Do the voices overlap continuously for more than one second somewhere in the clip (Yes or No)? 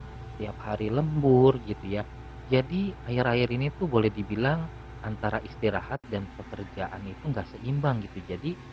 No